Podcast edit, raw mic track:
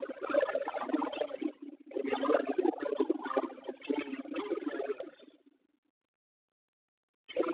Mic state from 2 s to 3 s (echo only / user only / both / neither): echo only